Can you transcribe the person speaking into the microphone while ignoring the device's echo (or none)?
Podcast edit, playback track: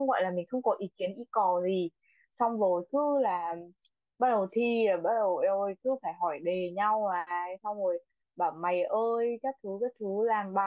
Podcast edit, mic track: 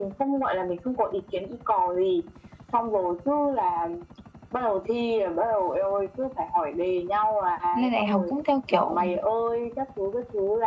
lên đại học cũng theo kiểu